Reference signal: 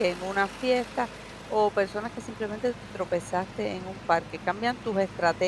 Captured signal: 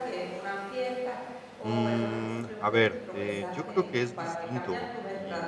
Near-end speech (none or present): present